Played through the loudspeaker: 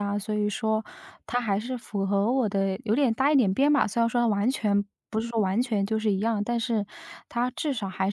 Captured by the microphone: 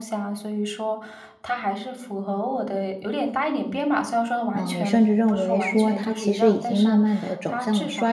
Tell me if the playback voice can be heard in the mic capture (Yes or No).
Yes